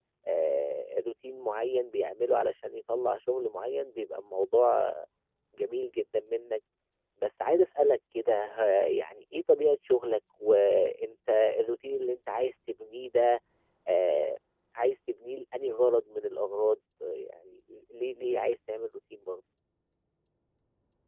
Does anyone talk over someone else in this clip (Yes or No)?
No